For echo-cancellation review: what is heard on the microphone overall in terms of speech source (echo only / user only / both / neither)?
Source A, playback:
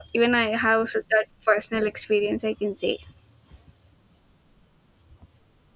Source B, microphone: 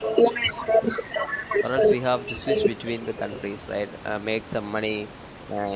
both